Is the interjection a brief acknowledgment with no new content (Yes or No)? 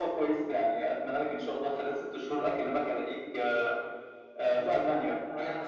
No